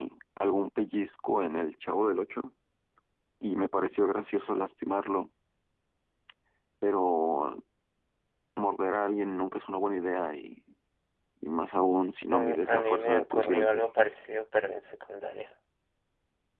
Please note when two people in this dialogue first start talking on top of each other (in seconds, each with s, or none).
12.3 s